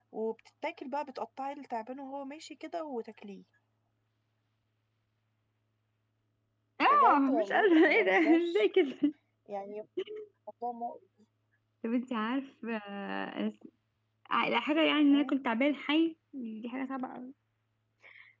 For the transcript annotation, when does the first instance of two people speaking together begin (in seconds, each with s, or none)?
6.9 s